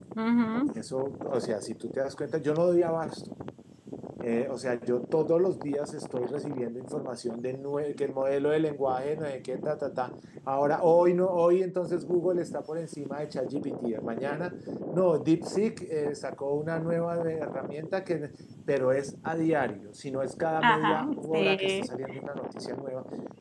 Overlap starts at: 20.6 s

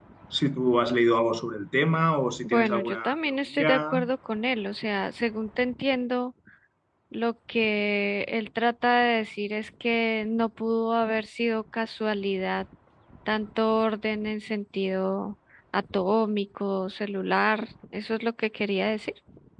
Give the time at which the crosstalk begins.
2.4 s

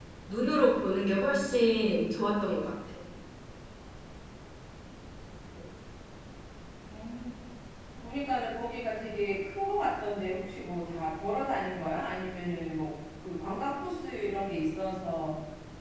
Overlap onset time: none

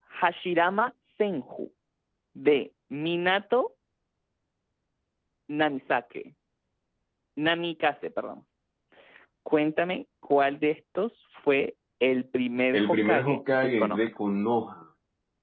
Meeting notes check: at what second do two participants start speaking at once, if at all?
12.7 s

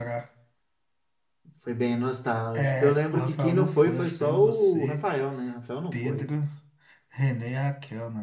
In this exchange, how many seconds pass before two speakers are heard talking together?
2.6 s

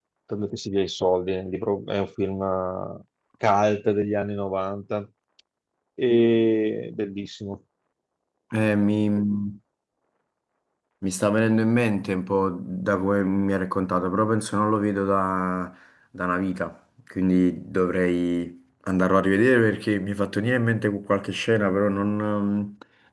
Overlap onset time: none

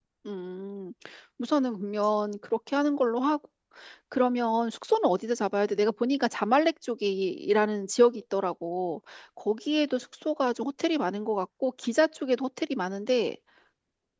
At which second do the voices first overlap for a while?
none

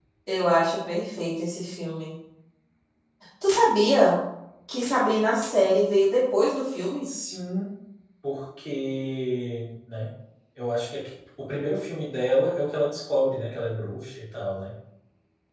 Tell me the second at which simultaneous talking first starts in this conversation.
none

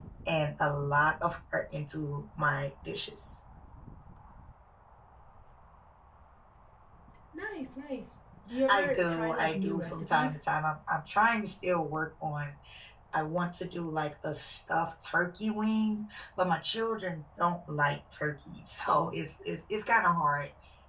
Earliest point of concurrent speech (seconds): 8.5 s

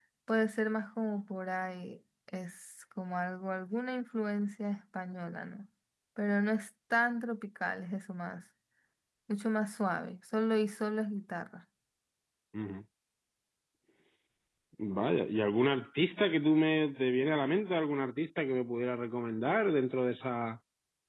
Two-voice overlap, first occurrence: none

